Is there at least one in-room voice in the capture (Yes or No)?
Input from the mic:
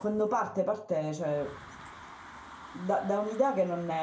Yes